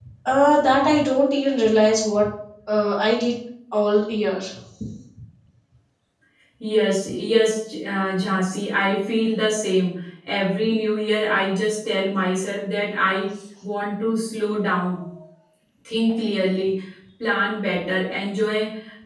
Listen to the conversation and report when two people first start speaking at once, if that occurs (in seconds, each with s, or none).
none